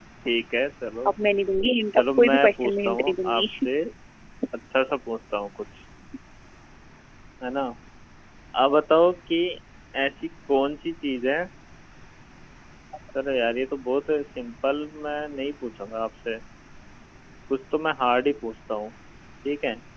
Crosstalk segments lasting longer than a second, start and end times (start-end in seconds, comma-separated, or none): 2.0-3.4